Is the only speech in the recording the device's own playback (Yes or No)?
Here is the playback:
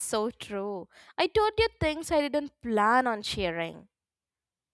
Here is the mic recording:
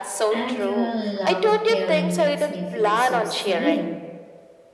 No